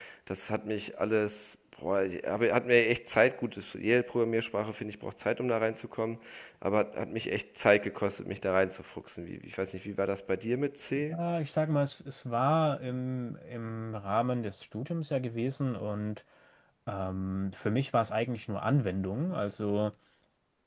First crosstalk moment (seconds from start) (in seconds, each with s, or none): none